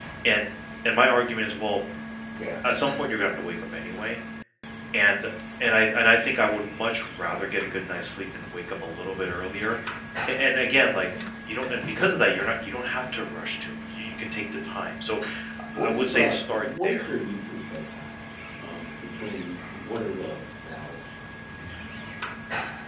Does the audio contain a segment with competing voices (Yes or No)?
Yes